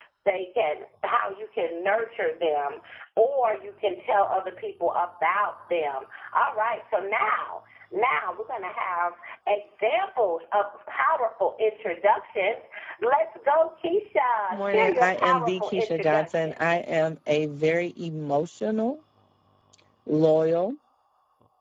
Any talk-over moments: Yes, from 14.5 s

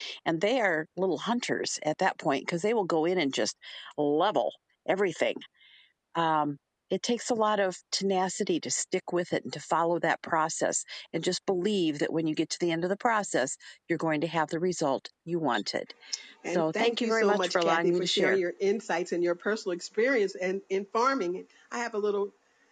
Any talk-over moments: Yes, from 16.5 s

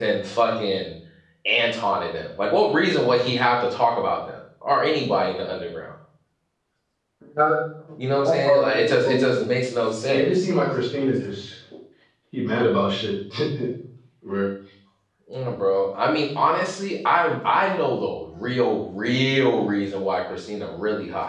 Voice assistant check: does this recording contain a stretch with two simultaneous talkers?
Yes, from 8.1 s

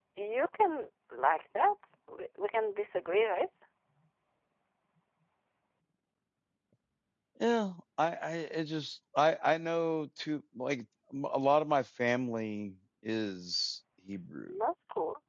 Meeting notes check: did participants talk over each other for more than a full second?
No

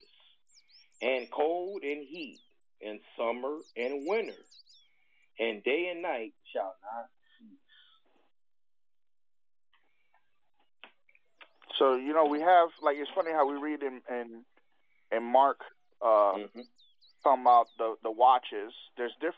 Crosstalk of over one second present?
No

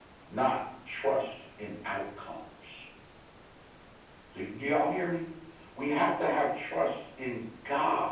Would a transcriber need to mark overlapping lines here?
No

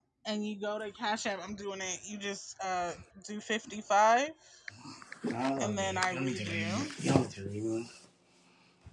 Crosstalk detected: Yes, from 5.6 s

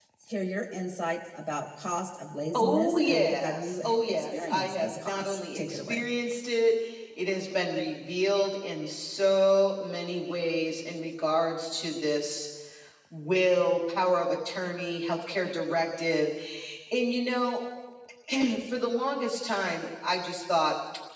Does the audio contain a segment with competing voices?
Yes, from 2.5 s

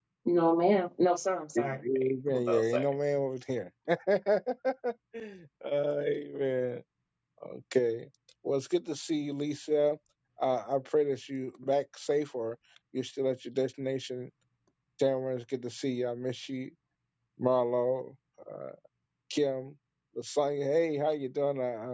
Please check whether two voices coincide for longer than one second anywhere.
Yes, from 1.6 s

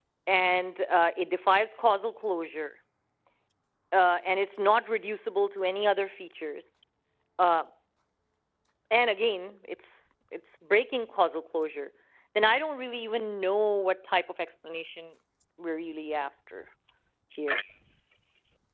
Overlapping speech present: No

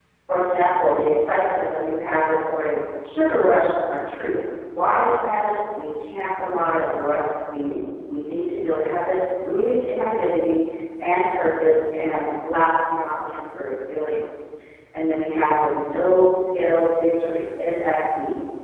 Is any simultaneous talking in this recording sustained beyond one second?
No

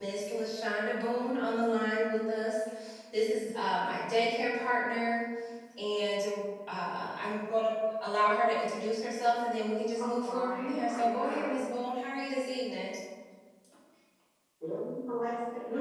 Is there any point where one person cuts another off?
Yes, from 10.0 s

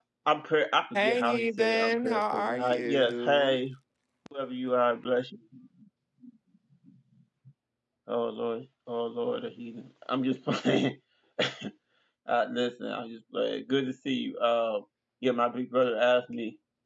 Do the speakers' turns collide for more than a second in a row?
Yes, from 0.9 s

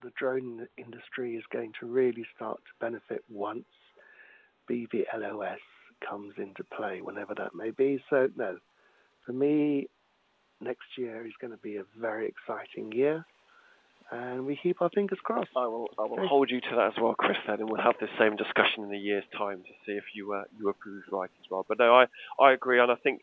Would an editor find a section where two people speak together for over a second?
No

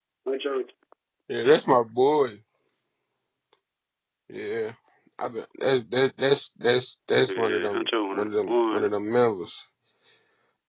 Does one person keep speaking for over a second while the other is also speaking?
Yes, from 7.2 s

